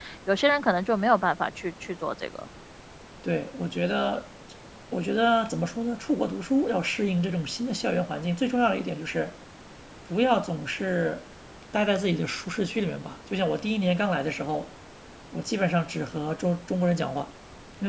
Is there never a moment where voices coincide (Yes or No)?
Yes